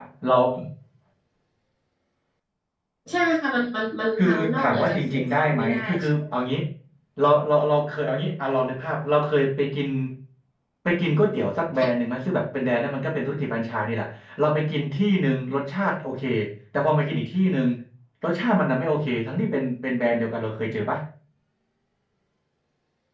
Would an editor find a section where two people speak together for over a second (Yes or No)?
Yes